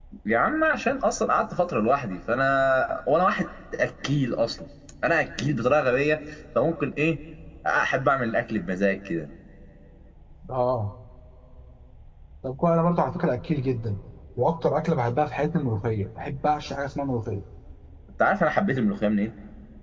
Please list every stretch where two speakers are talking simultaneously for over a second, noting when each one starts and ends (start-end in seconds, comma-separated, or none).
none